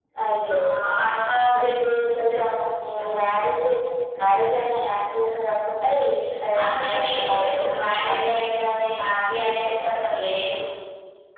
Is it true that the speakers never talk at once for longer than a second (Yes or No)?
No